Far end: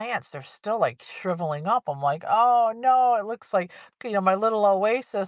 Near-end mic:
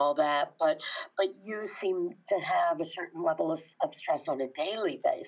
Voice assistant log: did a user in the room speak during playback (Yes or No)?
Yes